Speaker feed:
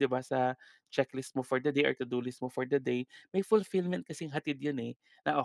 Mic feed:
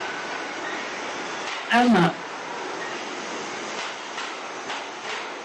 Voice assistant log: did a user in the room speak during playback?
Yes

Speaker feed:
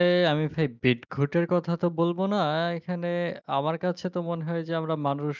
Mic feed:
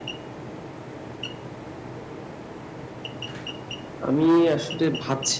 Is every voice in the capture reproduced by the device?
No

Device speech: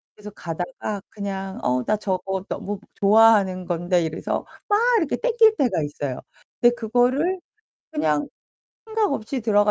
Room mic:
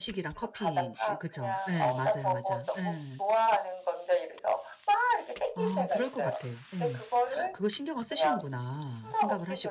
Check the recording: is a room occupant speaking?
Yes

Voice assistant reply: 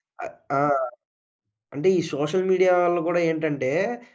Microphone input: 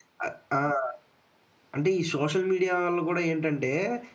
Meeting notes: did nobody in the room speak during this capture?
Yes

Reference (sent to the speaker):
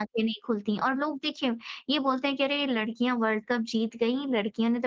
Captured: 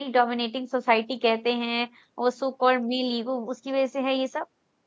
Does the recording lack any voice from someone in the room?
No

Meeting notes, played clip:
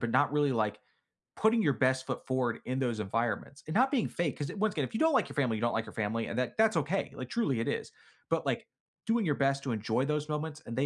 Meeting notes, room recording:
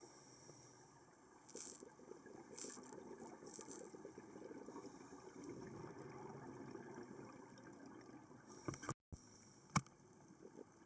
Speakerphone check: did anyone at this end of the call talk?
No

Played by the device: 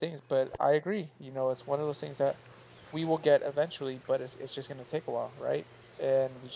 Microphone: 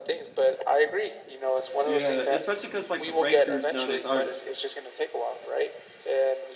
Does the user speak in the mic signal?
Yes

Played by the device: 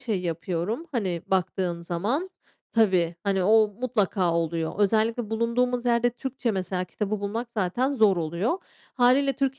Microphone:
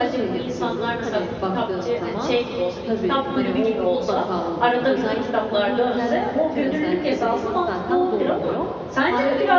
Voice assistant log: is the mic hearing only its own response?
No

